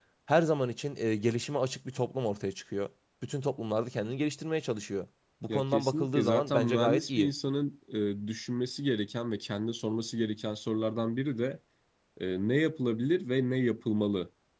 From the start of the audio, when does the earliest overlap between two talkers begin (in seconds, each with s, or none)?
5.5 s